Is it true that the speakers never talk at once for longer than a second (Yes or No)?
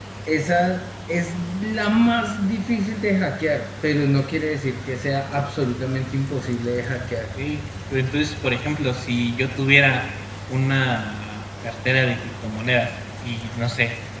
Yes